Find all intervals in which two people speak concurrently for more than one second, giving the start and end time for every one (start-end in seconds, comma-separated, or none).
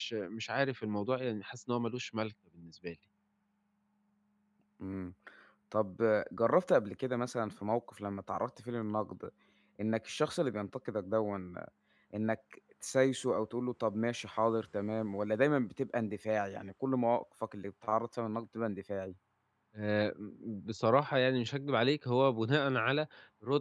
none